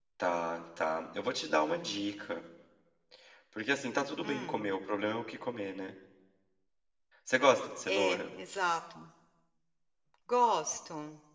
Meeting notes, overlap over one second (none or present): none